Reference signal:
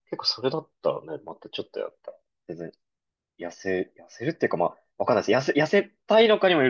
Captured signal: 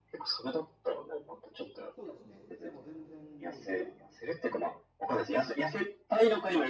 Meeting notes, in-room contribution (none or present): present